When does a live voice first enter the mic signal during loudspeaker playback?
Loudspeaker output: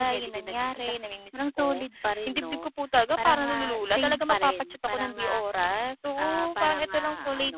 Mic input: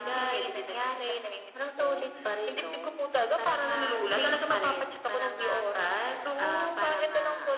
none

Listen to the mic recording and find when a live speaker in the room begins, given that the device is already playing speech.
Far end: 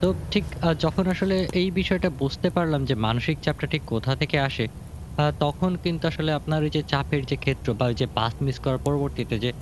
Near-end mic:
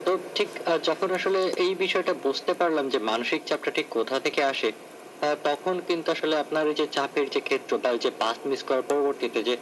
none

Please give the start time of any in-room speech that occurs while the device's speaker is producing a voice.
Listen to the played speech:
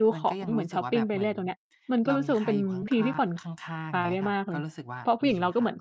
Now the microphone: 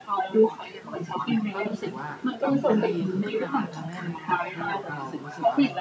1.5 s

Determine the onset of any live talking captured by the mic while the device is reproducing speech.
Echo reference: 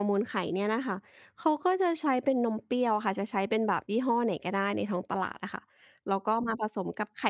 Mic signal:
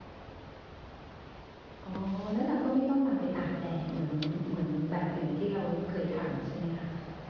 1.8 s

